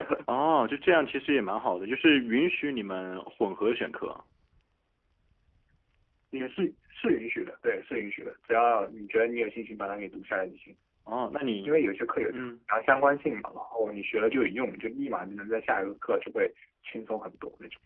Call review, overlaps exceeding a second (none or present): none